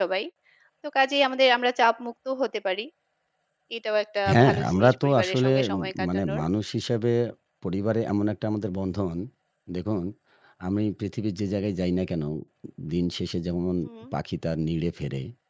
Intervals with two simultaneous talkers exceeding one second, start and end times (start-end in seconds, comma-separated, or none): 4.3-6.4